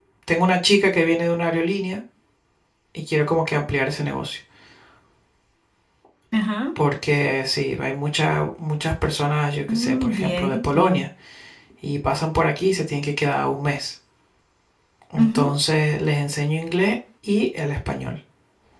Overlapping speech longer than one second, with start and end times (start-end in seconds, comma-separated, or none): 9.7-11.0